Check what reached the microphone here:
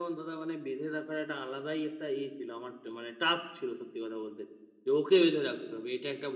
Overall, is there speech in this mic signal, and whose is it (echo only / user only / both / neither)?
echo only